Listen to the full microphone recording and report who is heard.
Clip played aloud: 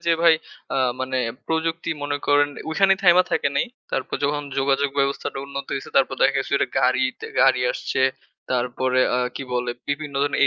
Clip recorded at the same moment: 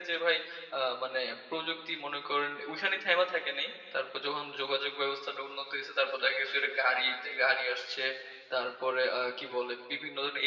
echo only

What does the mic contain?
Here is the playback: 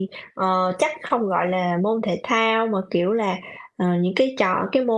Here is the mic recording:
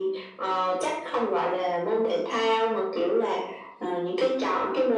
echo only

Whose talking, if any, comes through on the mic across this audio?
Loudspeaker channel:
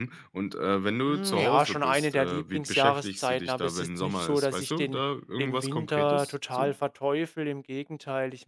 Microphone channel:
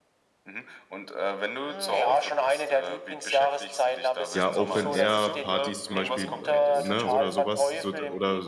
both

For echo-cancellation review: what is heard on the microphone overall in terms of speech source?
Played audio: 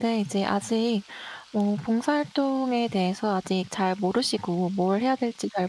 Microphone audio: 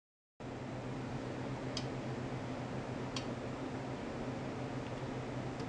neither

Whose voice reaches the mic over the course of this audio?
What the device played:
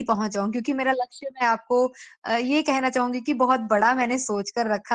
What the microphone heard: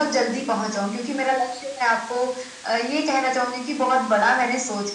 echo only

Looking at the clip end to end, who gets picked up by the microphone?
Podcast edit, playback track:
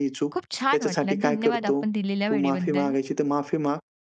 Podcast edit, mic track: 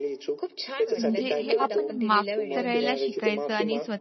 both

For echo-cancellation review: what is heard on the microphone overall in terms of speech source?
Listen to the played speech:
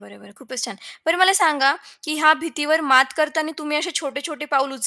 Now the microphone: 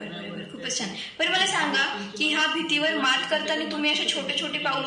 both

